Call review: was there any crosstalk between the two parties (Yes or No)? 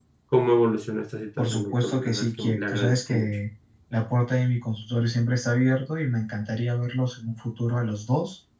Yes